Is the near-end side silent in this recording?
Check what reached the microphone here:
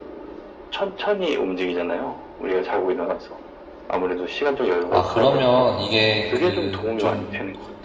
No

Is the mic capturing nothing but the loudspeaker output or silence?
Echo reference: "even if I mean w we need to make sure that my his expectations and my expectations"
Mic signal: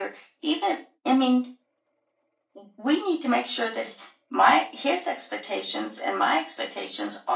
Yes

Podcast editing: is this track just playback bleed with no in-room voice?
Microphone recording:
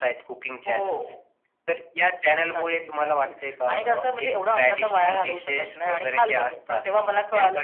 Yes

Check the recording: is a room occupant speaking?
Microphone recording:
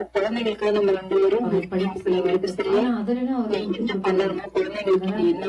Yes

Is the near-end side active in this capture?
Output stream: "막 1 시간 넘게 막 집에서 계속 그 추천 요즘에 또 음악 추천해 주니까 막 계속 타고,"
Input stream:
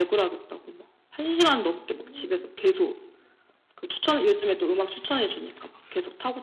Yes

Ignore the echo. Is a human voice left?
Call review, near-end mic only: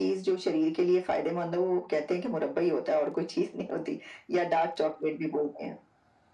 No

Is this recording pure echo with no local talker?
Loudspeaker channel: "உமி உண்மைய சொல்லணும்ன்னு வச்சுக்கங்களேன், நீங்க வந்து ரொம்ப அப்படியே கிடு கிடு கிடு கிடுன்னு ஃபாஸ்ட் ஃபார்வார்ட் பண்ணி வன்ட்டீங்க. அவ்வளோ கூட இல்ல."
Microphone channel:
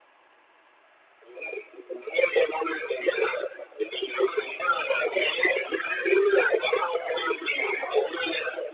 Yes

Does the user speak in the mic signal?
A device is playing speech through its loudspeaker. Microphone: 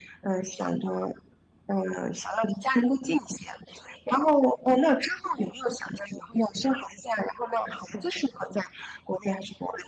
No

